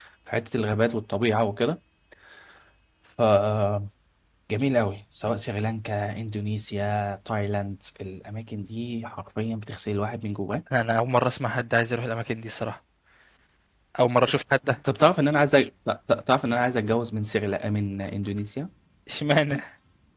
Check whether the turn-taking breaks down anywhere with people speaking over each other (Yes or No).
No